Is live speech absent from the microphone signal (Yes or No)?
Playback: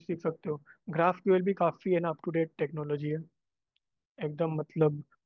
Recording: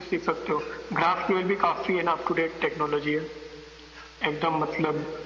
Yes